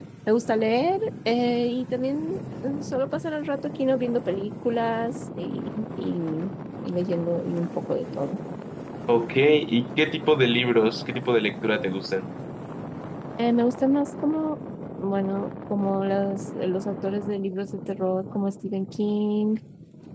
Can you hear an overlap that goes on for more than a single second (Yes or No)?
No